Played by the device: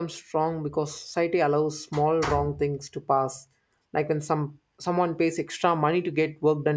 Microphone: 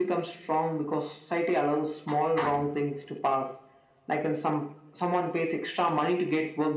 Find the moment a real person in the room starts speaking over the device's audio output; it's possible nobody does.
none

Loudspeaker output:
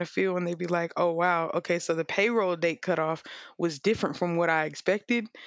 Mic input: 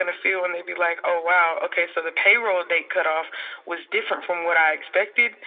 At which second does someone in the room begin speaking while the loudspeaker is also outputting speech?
none

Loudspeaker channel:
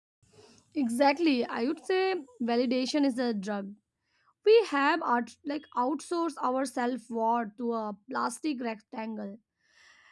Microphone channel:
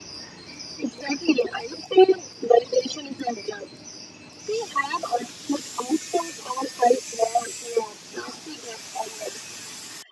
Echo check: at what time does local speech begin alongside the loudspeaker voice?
none

